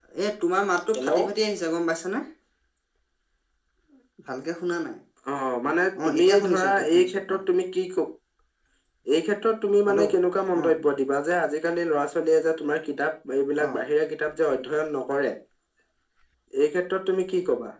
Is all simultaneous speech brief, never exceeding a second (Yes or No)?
No